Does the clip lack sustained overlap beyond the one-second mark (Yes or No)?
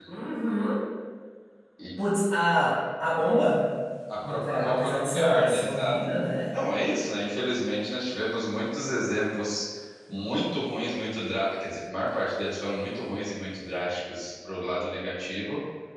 No